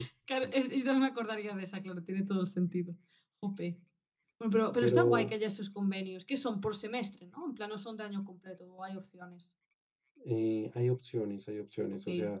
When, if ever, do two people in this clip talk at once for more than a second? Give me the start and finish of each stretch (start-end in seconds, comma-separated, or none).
none